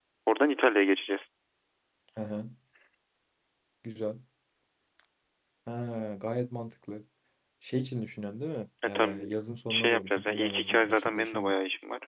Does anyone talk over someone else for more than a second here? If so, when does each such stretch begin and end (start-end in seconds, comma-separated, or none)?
9.7-11.5